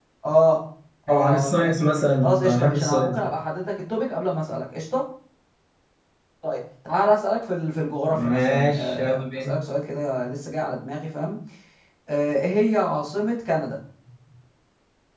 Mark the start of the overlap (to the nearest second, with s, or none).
1 s